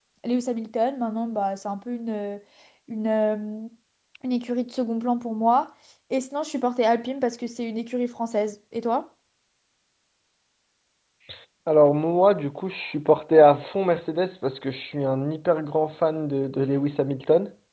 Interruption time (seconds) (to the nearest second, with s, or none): none